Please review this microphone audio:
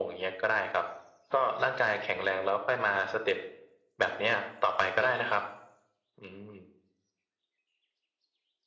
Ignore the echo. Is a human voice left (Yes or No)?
No